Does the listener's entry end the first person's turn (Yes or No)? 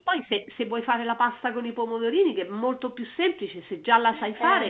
Yes